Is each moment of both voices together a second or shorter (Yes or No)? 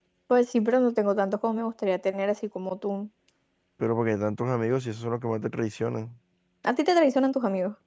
Yes